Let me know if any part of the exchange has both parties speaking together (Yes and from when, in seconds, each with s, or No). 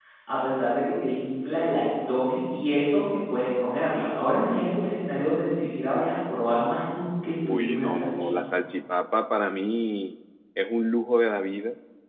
Yes, from 7.3 s